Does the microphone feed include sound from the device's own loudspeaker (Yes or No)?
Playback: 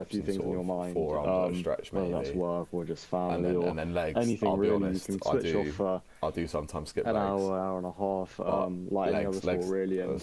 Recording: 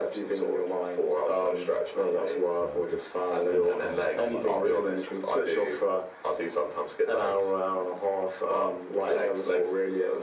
Yes